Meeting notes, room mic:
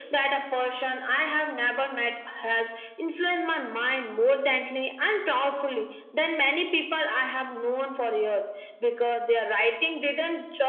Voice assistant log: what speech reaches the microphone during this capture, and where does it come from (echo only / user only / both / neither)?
echo only